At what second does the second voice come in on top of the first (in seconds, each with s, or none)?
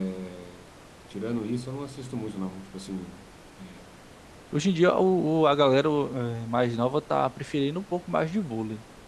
none